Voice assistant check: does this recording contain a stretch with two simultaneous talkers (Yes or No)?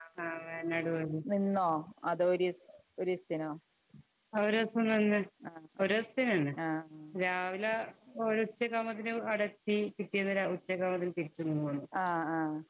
No